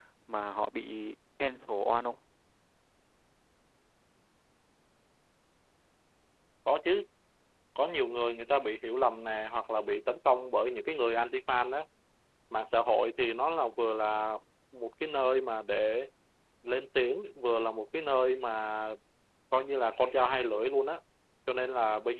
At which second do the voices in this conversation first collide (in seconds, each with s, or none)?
none